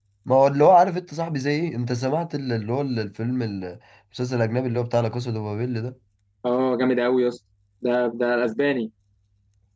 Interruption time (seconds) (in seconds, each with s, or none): none